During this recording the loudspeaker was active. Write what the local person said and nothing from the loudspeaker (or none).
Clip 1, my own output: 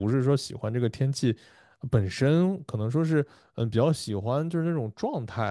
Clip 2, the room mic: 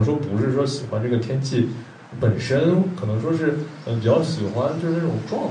none